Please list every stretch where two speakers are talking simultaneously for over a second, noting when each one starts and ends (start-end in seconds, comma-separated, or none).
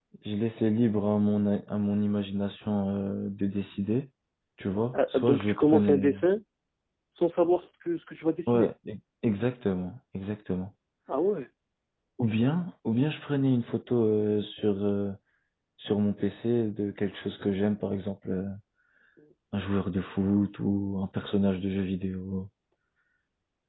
4.9-6.2